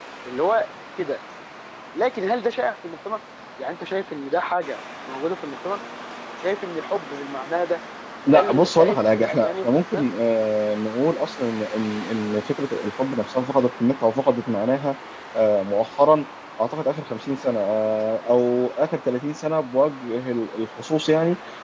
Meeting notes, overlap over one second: present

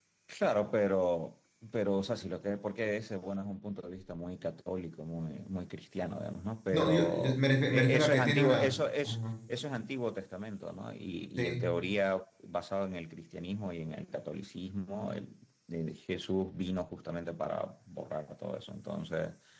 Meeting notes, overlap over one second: present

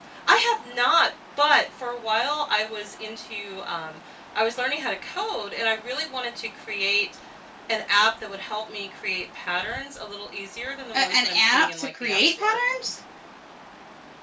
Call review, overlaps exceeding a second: present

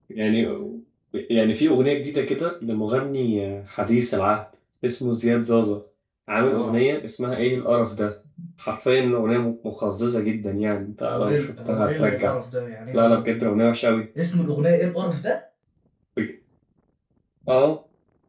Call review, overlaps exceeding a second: present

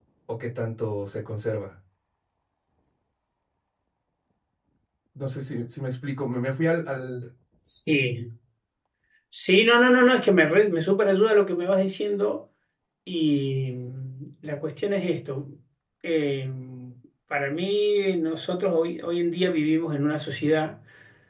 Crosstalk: none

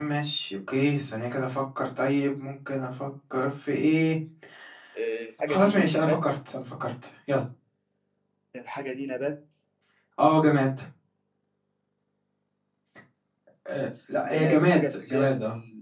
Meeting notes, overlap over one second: present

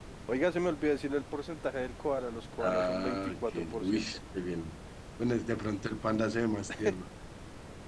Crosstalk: present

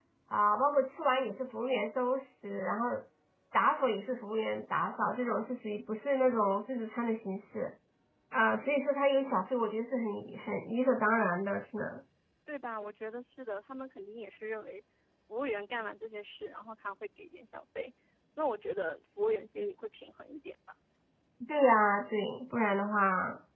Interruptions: none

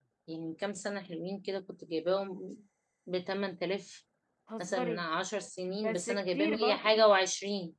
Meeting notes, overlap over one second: present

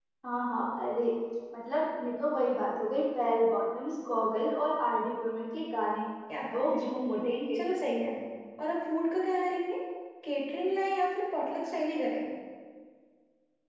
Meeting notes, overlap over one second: none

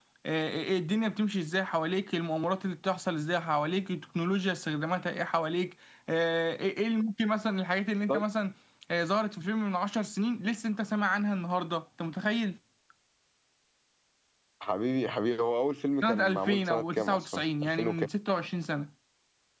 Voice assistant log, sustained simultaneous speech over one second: present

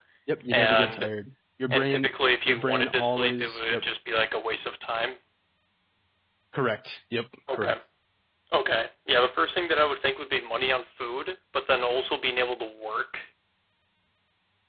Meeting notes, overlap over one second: present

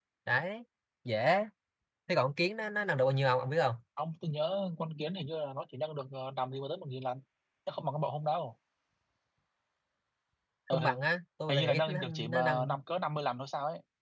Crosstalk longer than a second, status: present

